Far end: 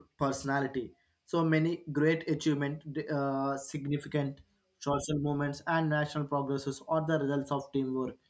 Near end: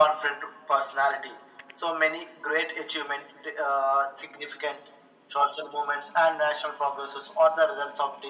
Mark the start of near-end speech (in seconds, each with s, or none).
none